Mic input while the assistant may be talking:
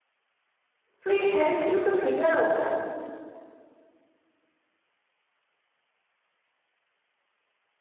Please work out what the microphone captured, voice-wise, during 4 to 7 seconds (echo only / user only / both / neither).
neither